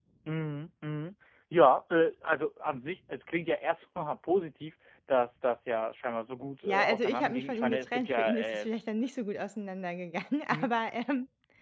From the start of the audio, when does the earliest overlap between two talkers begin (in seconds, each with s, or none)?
6.7 s